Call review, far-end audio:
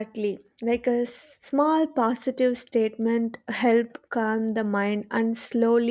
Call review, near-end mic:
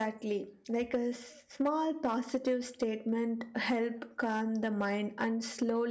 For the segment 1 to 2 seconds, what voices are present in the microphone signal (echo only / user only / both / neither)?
echo only